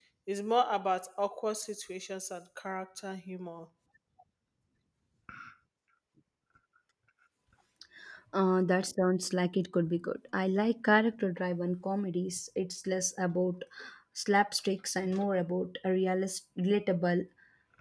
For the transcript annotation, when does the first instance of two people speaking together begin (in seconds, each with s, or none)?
none